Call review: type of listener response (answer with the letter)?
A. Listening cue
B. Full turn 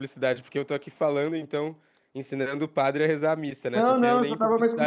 B